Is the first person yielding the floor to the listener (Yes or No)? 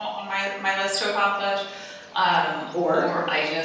No